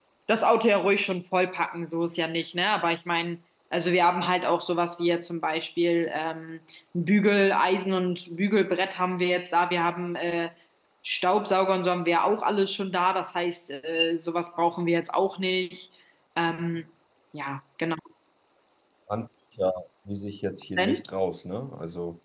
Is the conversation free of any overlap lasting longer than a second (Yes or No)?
Yes